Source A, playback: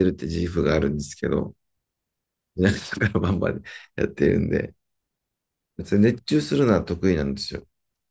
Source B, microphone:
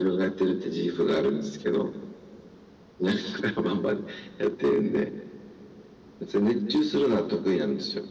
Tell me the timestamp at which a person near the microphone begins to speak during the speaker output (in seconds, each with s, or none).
none